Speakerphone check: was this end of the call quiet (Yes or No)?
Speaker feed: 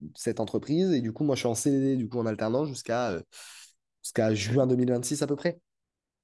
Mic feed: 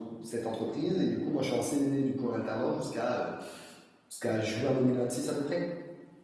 Yes